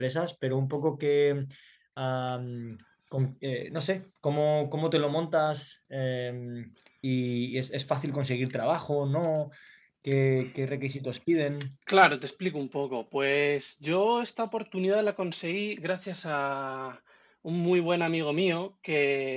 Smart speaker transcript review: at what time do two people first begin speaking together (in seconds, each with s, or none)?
none